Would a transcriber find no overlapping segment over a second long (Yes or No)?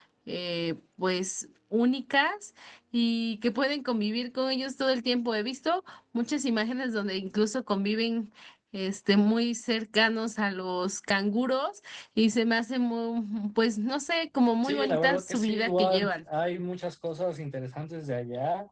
No